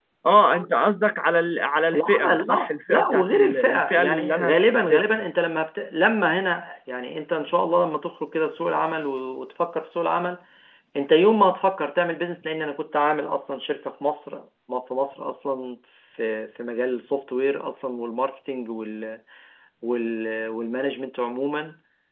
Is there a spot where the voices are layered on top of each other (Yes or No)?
Yes